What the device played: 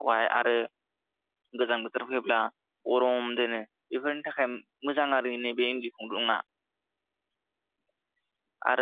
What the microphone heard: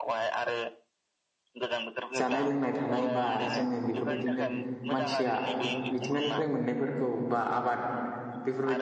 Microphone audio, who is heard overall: both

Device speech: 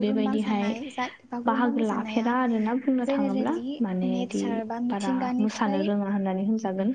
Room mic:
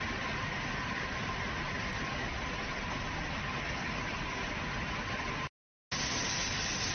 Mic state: neither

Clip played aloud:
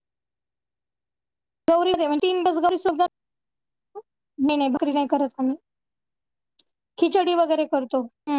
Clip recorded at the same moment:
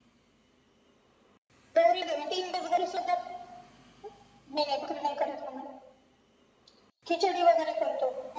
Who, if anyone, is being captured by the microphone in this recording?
echo only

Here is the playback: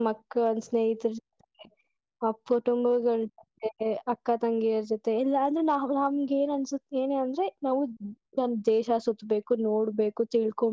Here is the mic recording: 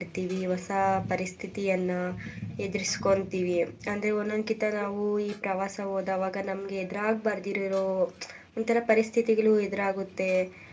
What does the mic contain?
user only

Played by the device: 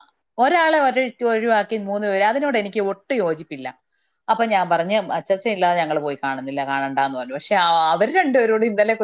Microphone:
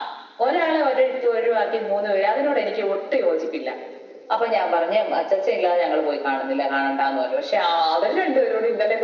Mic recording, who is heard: echo only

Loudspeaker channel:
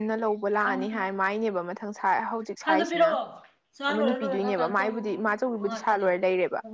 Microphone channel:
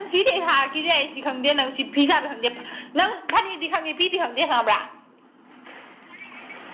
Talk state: user only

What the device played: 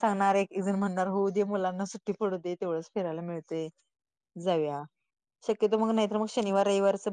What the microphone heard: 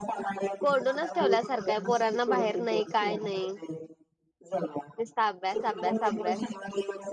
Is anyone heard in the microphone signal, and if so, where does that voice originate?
both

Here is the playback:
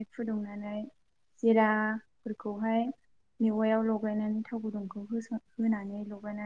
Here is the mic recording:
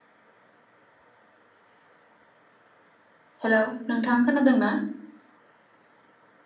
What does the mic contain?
user only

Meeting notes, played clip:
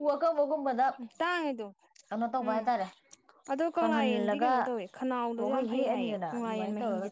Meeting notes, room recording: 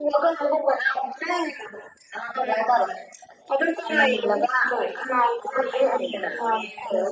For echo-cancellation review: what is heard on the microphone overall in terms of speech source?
echo only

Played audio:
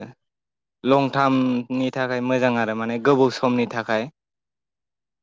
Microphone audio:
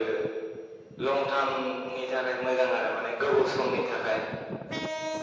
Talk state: echo only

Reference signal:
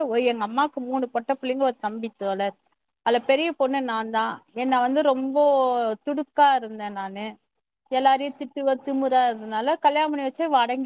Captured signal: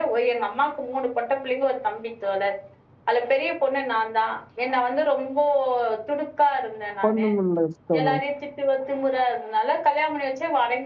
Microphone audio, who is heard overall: both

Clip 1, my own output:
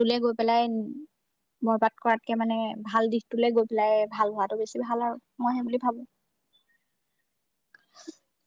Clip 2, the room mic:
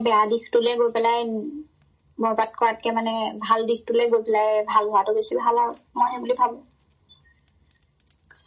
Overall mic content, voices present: echo only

